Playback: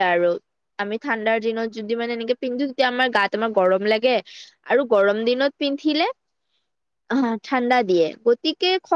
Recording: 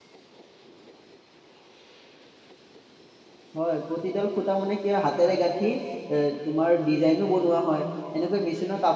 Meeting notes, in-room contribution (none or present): present